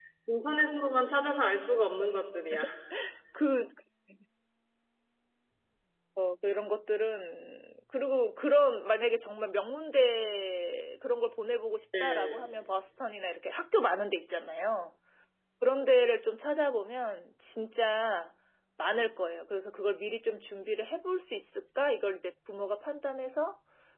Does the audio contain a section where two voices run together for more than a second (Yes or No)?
No